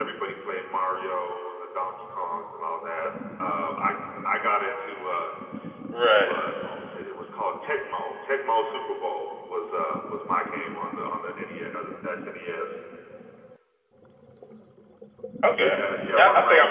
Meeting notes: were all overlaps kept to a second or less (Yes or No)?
Yes